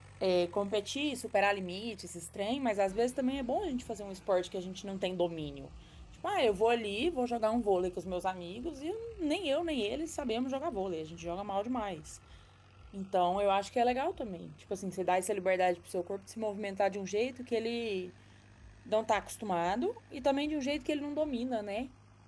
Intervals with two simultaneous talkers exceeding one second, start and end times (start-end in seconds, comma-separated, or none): none